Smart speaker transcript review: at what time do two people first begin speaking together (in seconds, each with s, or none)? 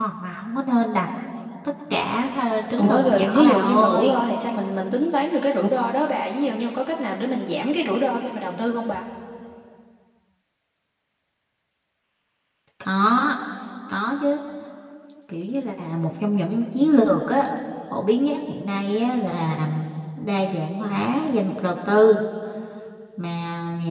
2.8 s